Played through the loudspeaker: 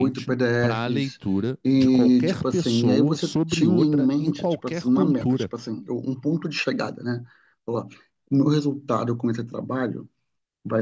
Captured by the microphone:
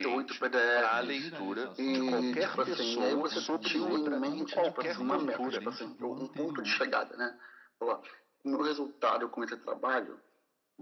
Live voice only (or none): E a viralização de hoje em dia, ela tem um conceito completamente diferente do anterior,